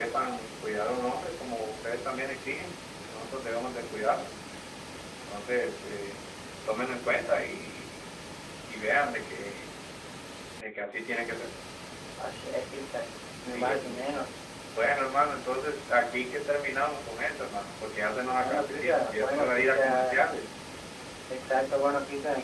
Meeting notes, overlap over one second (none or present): present